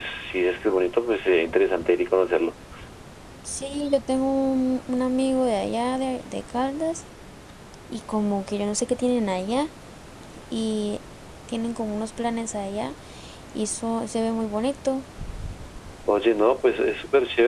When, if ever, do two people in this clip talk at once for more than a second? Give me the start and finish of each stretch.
none

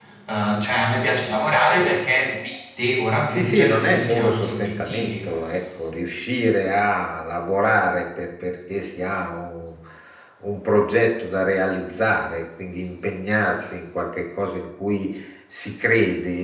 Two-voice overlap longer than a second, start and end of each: 3.3-5.3

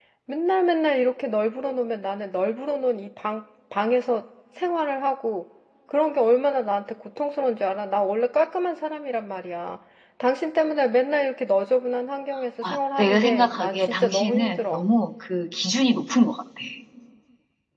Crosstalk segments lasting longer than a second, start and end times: 12.6-14.9

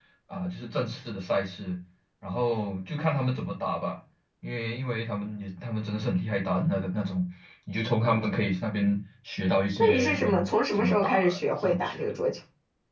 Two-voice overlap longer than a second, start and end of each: 9.8-12.2

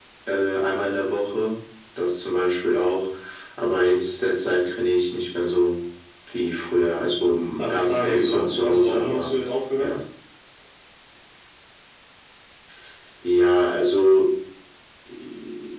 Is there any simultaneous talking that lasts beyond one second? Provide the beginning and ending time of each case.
7.6-9.3

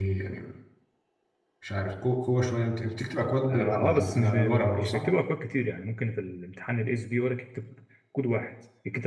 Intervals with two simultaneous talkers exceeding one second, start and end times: 3.5-5.1

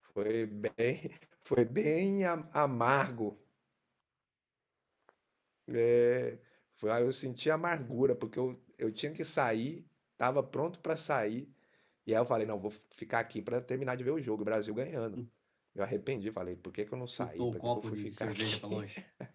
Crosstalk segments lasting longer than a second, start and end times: 17.2-18.8

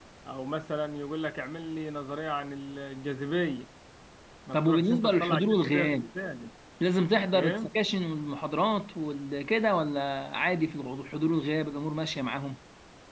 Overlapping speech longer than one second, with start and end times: 4.5-6.0

